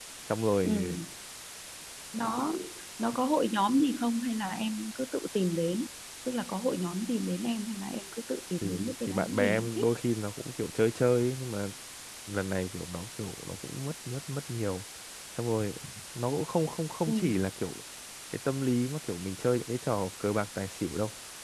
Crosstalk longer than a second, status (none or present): present